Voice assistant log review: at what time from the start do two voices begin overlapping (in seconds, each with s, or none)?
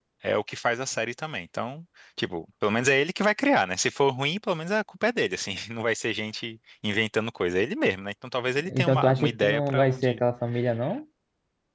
8.6 s